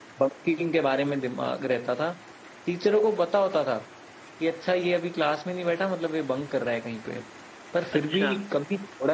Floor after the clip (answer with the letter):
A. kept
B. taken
A